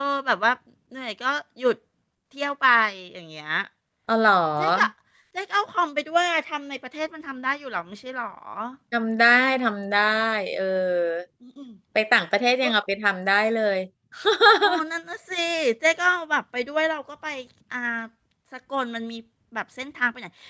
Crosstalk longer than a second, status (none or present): none